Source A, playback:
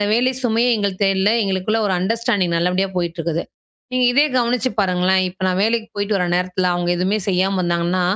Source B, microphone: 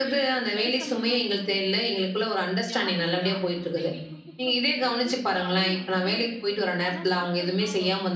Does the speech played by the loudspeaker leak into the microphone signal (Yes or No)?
Yes